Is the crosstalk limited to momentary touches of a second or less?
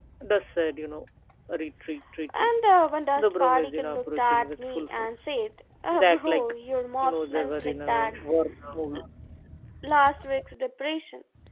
No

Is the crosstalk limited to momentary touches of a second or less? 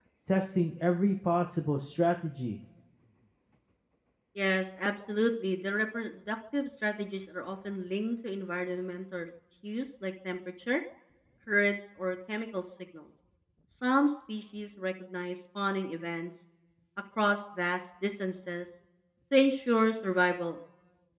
Yes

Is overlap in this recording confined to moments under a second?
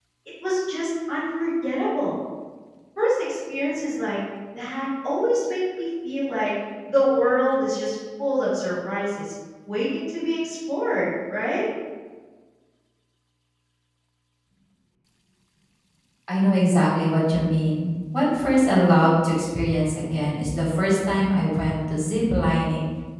Yes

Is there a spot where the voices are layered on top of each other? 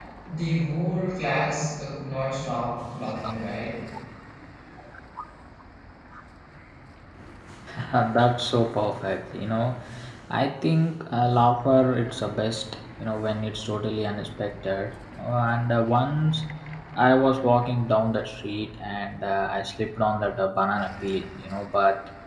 No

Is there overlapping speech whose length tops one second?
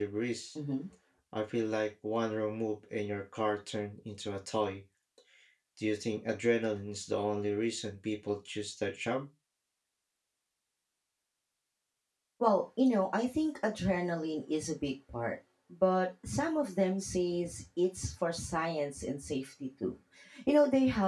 No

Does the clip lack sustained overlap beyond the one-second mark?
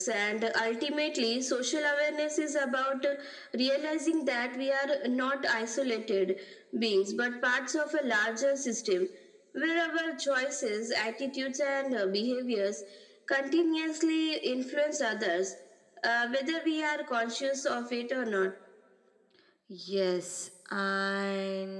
Yes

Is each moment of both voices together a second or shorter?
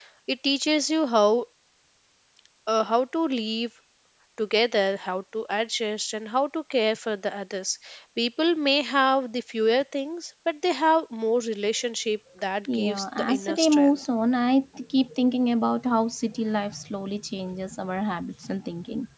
No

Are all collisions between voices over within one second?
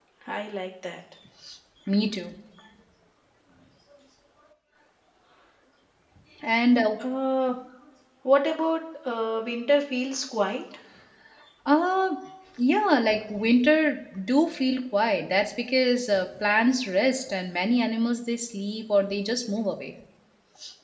Yes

